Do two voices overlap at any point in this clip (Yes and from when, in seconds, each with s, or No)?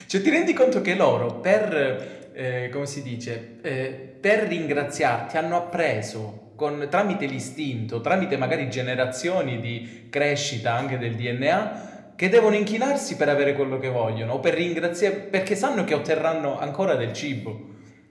No